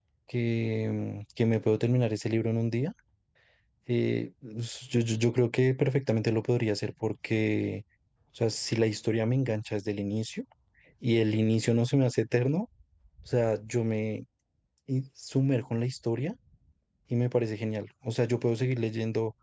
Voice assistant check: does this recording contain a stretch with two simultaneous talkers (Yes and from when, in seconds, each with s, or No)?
No